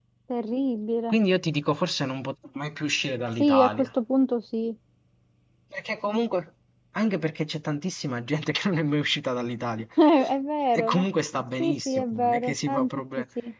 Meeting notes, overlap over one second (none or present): present